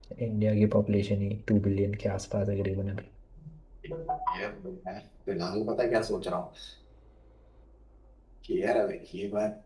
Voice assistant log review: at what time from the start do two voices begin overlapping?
none

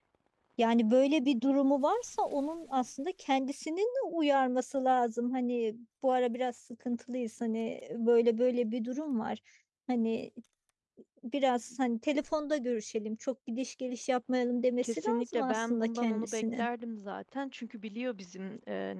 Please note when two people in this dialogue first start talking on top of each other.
14.8 s

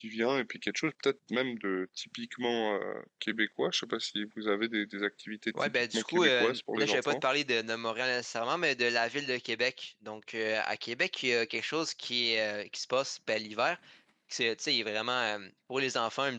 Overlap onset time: 5.5 s

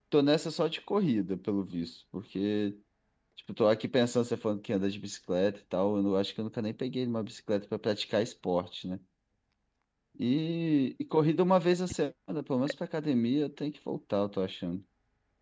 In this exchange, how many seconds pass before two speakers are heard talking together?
none

